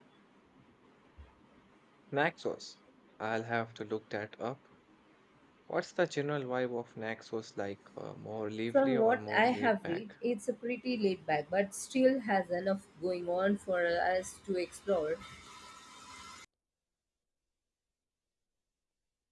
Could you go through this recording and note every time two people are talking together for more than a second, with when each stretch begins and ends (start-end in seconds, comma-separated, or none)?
8.7-10.0